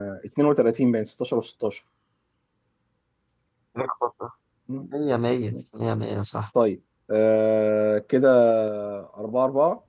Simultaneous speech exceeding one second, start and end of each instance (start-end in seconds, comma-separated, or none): none